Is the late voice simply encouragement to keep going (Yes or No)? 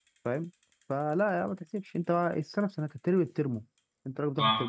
Yes